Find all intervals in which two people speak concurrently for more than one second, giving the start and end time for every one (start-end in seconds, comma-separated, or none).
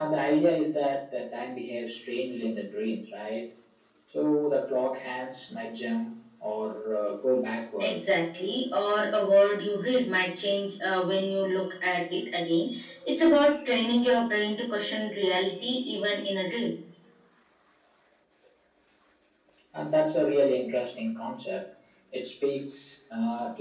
none